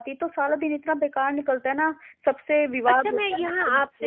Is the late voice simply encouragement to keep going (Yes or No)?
No